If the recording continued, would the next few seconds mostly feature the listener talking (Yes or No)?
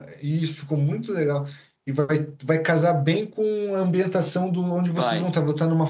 No